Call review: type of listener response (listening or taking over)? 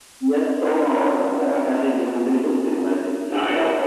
taking over